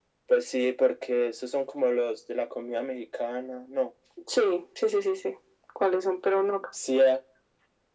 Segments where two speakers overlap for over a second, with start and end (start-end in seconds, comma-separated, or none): none